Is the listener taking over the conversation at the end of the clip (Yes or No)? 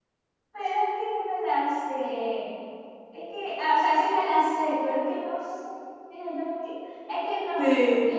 No